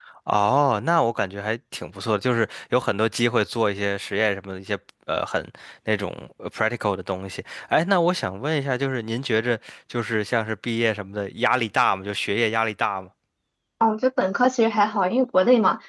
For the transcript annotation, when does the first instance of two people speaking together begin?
none

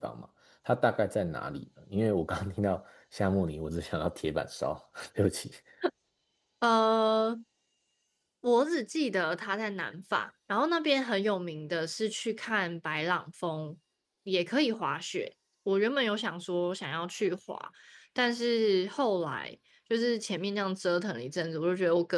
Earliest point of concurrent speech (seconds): none

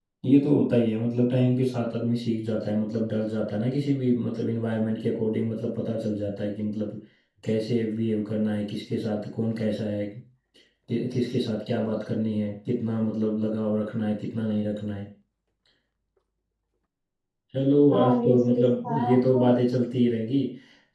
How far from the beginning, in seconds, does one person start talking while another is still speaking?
17.9 s

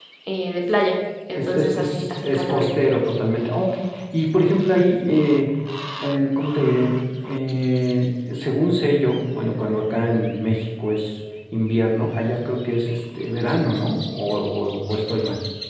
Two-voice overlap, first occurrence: 1.3 s

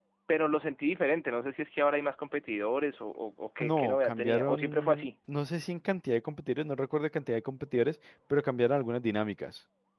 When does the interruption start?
3.6 s

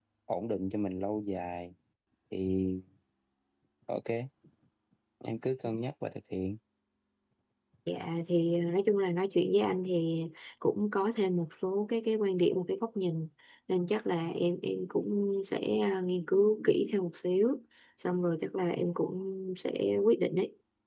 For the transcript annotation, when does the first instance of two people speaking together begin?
none

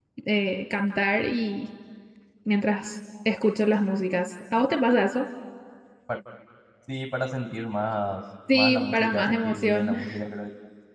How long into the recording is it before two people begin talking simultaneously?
8.5 s

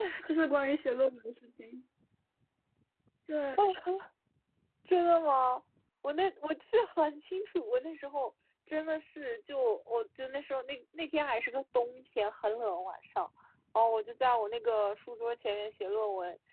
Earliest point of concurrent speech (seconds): none

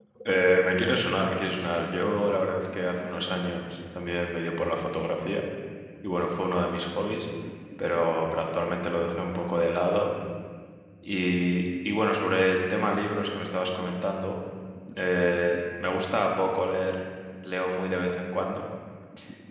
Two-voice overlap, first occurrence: none

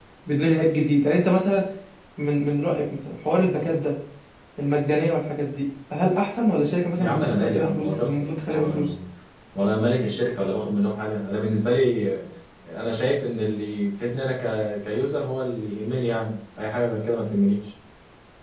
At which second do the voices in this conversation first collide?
7.0 s

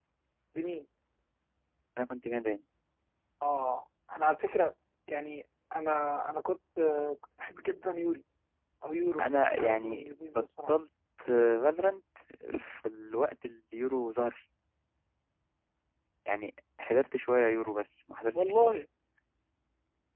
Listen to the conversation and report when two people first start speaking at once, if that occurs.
9.2 s

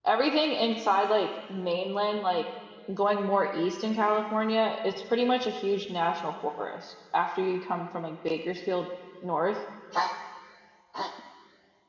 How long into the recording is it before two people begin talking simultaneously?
none

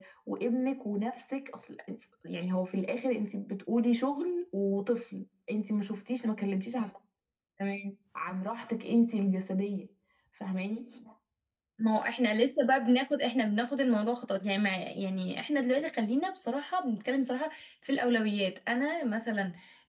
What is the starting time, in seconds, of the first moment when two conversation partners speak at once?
none

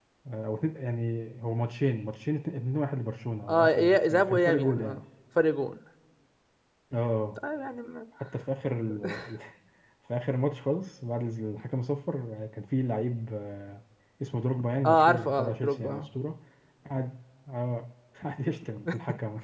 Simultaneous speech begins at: 3.5 s

